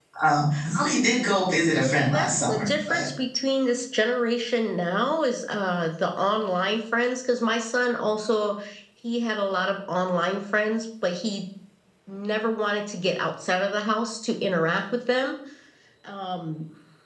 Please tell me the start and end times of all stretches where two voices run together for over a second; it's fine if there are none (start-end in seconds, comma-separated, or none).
1.7-3.1